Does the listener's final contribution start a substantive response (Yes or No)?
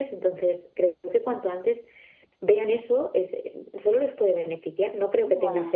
No